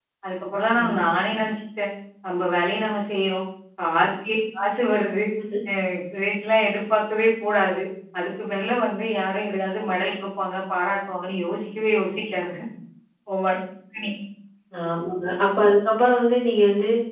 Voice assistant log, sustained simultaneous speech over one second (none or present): none